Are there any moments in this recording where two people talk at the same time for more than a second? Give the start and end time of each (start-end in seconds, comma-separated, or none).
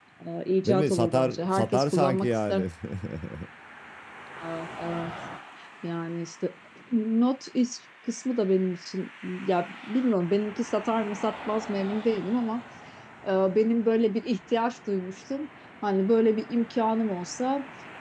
0.6-2.7